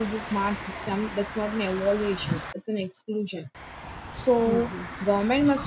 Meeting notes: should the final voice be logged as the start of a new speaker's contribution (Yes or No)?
No